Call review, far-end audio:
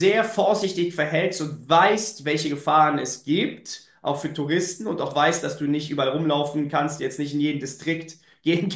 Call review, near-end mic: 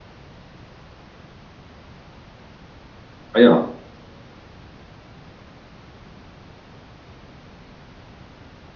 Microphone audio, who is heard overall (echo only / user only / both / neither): user only